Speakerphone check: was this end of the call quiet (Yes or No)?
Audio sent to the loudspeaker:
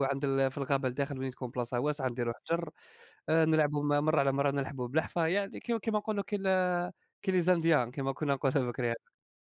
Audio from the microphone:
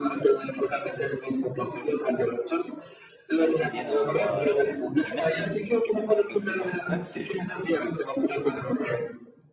No